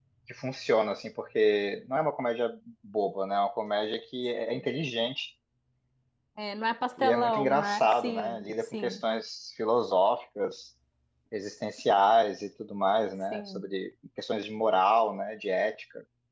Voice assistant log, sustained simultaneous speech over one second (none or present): present